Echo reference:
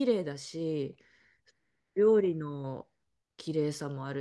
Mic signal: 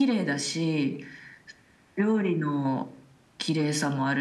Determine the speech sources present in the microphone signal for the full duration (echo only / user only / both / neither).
echo only